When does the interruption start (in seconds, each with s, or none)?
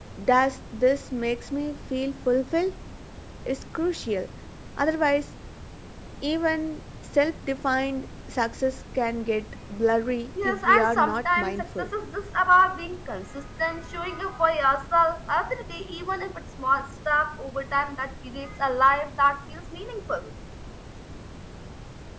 10.4 s